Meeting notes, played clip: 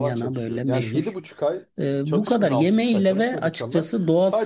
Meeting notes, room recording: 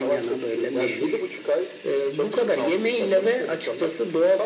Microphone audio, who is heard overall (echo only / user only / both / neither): echo only